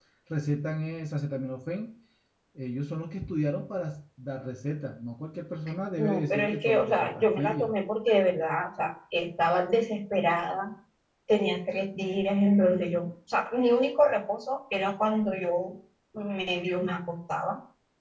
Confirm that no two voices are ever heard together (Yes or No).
No